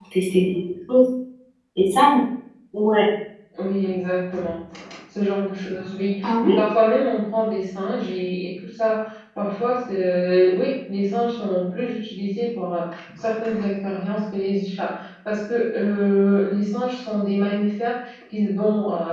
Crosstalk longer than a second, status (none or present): none